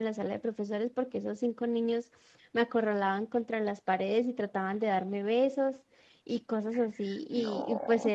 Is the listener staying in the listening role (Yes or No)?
Yes